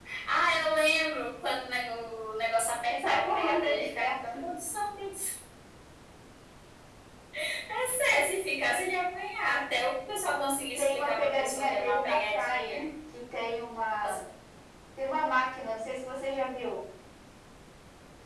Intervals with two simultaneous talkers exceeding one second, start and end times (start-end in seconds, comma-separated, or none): 2.9-4.2, 10.8-12.8